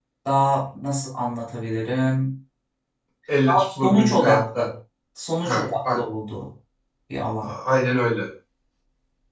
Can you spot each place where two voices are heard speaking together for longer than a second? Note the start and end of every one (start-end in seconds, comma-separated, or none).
3.5-4.7